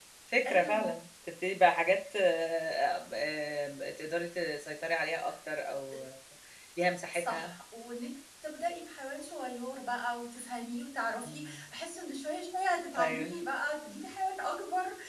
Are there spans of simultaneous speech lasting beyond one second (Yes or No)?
No